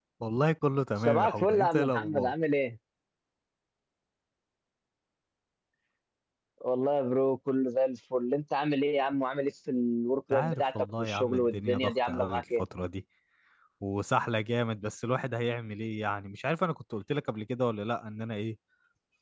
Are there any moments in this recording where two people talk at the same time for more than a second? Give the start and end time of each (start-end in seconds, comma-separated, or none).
1.0-2.3, 10.3-12.6